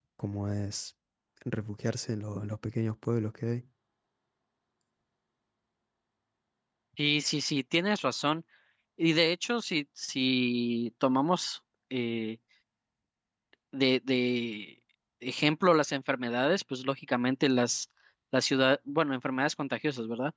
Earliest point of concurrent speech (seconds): none

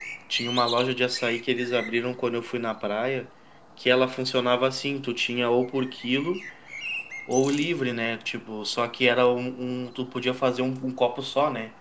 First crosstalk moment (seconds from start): none

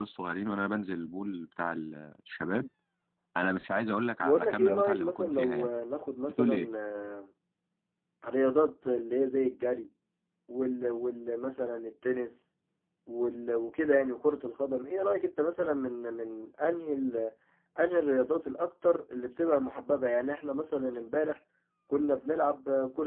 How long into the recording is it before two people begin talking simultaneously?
4.2 s

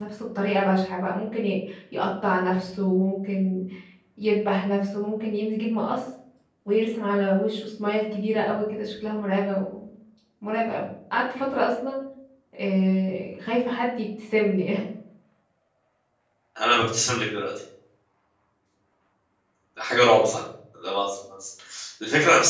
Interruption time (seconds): none

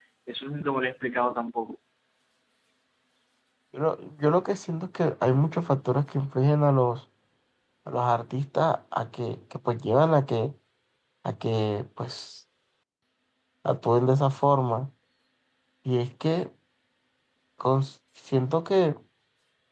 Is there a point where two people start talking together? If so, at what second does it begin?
none

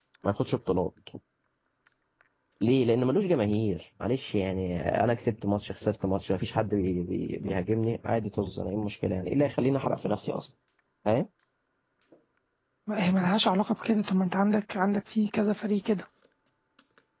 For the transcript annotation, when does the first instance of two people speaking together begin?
none

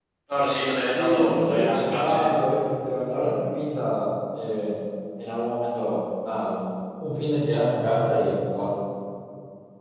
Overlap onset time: 0.9 s

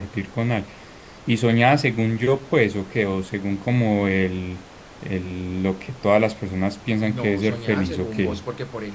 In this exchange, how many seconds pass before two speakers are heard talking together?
7.0 s

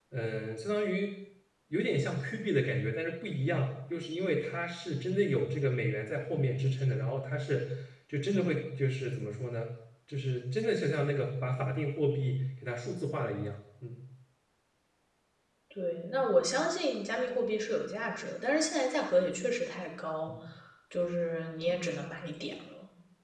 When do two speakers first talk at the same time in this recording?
none

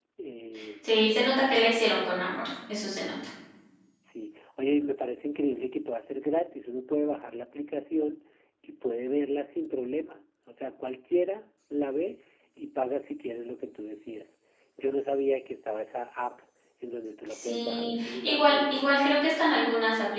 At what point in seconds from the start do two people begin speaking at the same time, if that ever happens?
17.3 s

